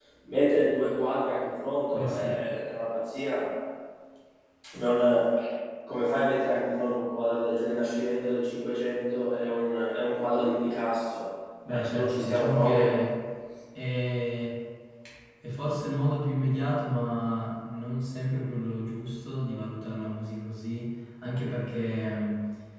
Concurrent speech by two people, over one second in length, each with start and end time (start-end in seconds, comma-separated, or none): 11.7-12.9